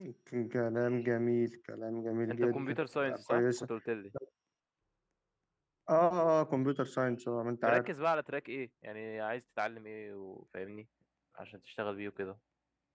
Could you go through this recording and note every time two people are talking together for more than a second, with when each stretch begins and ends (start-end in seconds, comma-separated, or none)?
2.3-3.7